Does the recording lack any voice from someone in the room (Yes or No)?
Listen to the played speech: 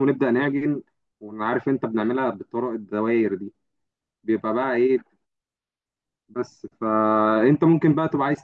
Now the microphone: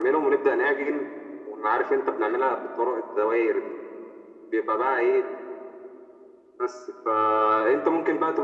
Yes